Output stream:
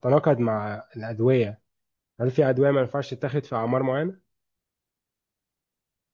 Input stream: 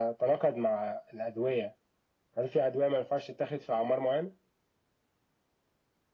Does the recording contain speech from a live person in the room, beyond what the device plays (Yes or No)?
No